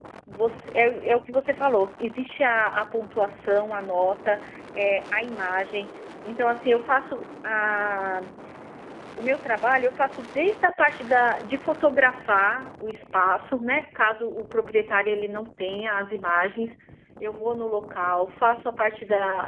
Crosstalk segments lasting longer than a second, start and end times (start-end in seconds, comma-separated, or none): none